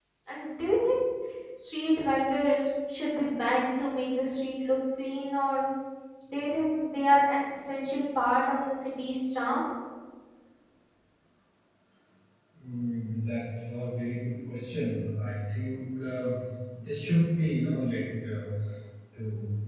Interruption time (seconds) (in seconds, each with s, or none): none